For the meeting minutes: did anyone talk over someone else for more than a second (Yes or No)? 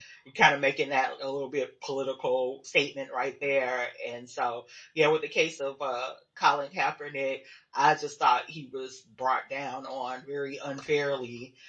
No